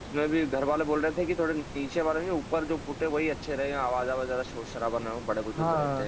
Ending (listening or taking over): taking over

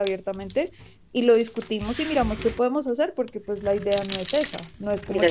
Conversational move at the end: taking over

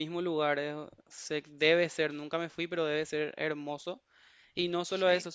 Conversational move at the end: listening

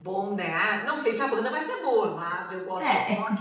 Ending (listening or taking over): listening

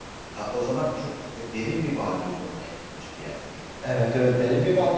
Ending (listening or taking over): taking over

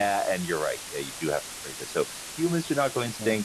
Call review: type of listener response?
listening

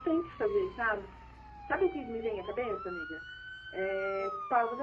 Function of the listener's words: listening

